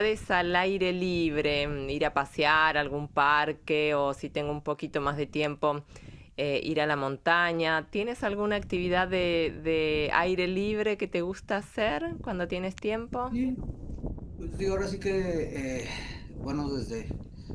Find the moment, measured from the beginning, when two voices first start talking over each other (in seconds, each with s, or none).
none